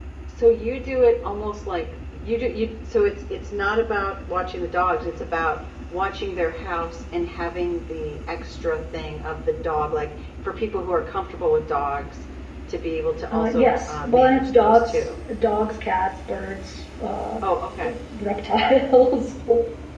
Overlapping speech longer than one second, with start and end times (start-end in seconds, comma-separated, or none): 13.3-15.2